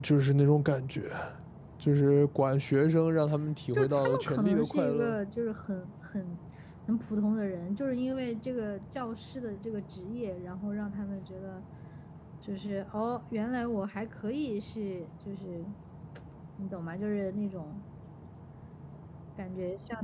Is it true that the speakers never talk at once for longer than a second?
No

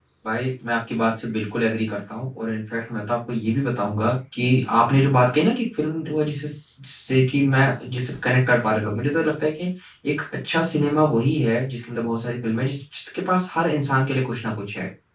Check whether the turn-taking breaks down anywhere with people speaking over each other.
No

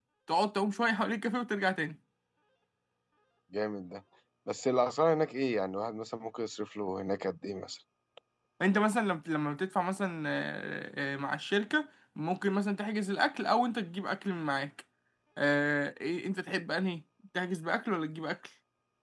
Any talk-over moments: No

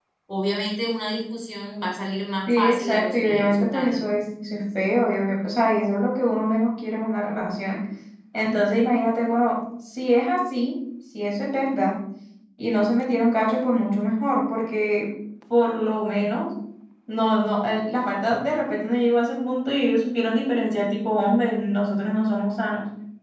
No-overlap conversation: No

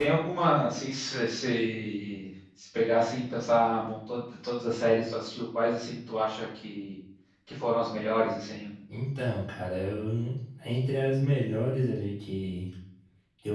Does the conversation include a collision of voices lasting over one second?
No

